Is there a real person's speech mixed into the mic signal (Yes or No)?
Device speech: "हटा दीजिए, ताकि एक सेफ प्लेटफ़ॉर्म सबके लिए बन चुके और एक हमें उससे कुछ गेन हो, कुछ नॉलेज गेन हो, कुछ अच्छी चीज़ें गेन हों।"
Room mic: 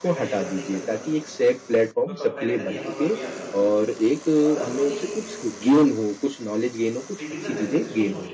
Yes